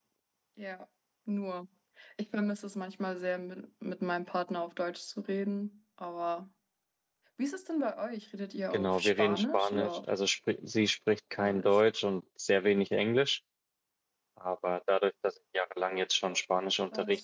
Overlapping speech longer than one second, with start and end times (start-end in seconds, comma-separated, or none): 8.7-10.0